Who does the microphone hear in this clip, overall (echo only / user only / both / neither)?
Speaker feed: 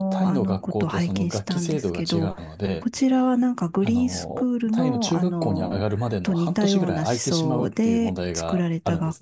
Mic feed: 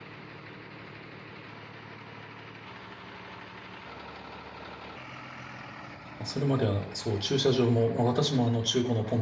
user only